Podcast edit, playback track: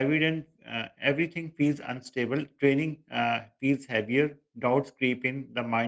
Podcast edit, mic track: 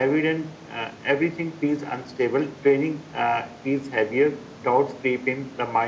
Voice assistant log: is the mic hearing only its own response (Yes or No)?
Yes